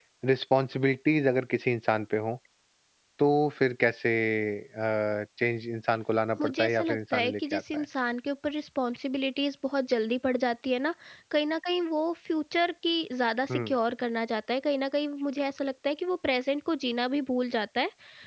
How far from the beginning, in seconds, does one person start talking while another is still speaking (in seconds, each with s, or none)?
6.3 s